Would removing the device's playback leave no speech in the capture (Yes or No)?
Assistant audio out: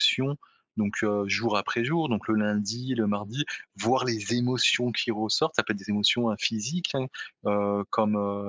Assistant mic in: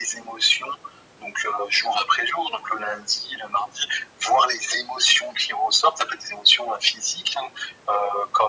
Yes